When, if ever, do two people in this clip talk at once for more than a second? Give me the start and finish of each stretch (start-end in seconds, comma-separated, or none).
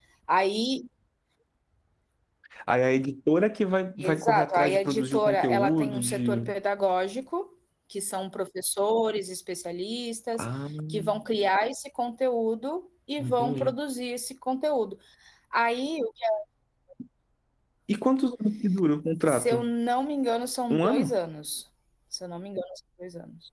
4.0-6.5